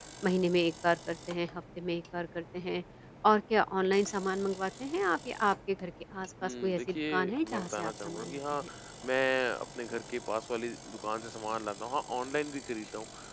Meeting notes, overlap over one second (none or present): present